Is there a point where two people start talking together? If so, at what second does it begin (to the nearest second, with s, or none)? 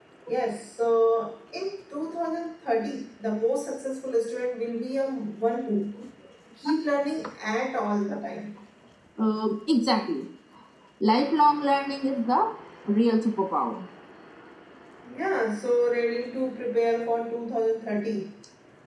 none